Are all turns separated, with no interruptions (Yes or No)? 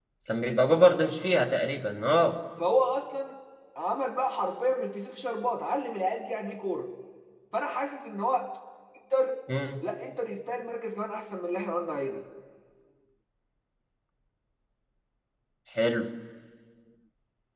Yes